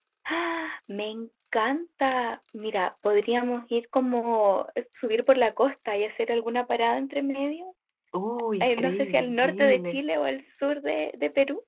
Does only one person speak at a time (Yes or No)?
No